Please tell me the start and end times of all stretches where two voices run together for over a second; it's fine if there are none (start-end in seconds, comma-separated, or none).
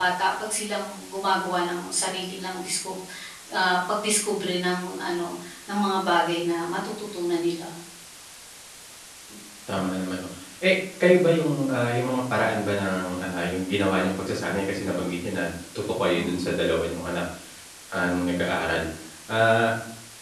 none